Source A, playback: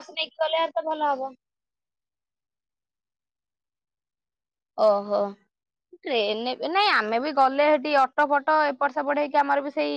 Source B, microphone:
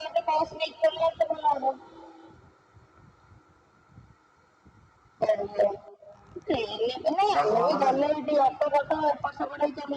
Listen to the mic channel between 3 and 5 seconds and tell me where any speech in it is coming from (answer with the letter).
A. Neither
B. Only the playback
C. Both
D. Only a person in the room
A